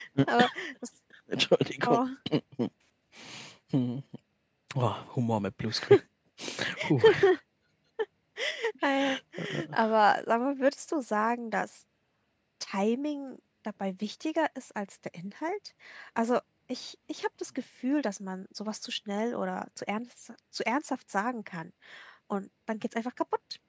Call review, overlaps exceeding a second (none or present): none